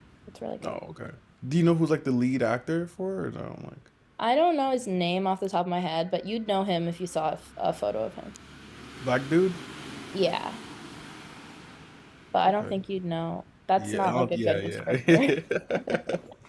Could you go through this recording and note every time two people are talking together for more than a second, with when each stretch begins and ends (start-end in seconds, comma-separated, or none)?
13.8-15.3